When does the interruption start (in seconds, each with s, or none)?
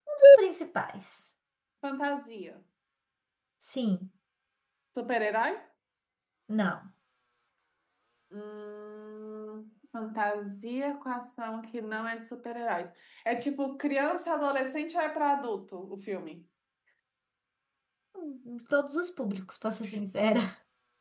none